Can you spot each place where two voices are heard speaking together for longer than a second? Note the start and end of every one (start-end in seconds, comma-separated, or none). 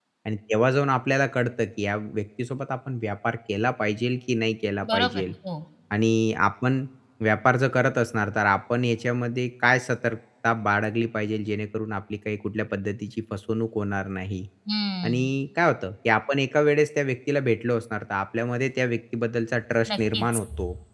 none